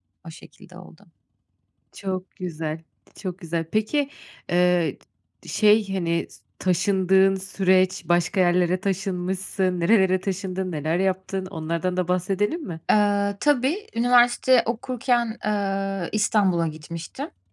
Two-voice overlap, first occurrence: none

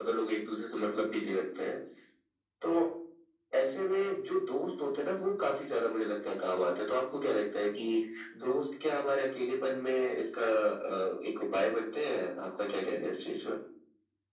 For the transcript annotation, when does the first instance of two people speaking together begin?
none

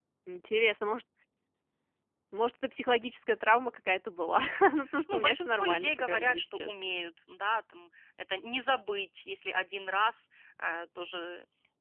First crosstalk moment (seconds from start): 5 s

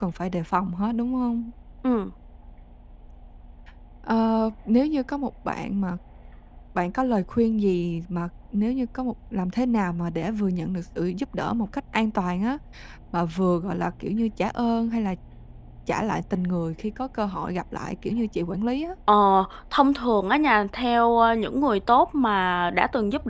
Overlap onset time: none

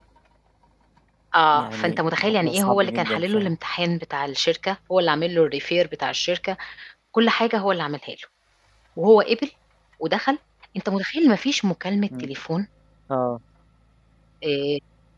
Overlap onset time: 2 s

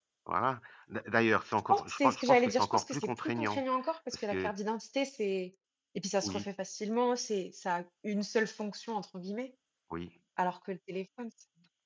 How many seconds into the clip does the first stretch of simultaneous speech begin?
2 s

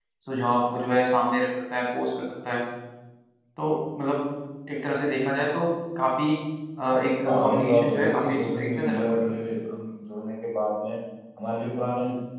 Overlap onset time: 7 s

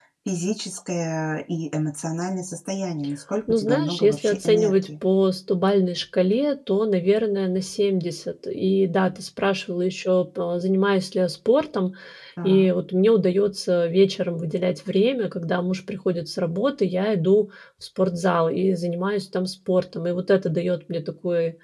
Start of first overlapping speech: 3 s

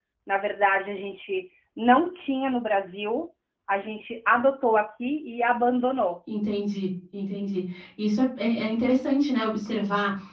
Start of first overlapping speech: none

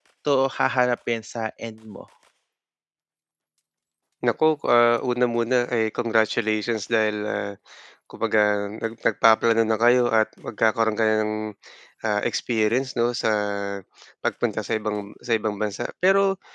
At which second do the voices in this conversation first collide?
none

